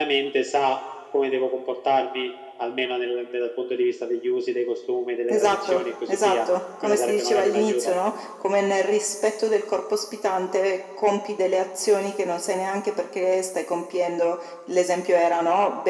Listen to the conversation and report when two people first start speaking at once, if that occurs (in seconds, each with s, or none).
5.3 s